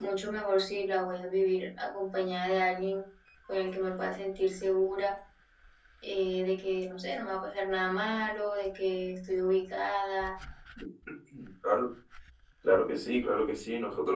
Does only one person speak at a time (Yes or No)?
Yes